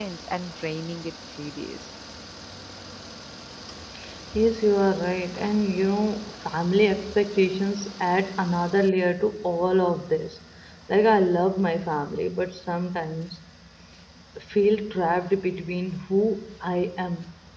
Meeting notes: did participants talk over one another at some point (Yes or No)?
No